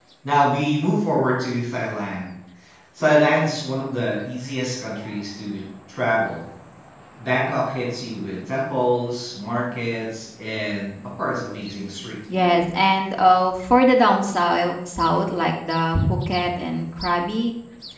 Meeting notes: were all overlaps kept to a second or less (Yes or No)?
Yes